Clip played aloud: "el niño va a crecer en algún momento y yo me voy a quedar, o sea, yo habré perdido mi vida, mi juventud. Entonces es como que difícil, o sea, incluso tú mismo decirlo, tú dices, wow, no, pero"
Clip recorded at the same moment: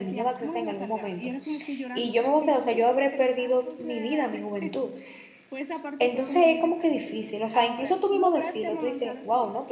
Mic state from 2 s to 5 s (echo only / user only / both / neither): both